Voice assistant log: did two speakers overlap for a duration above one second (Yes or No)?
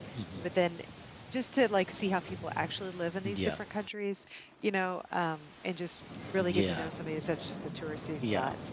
No